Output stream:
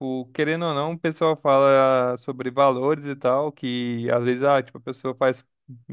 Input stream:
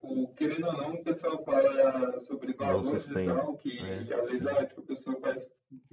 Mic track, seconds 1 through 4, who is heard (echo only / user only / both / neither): both